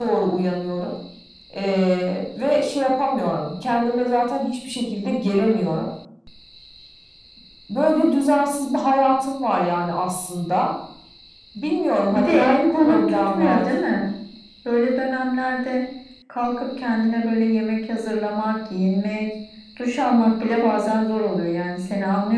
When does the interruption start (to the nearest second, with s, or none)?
12 s